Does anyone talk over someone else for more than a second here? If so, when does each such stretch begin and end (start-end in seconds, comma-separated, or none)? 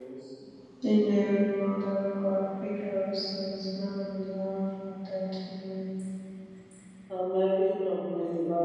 none